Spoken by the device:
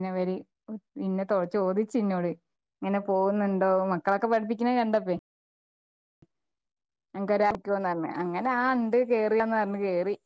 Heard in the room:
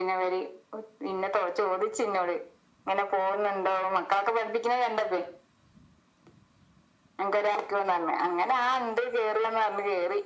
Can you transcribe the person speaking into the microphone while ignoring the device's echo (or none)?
none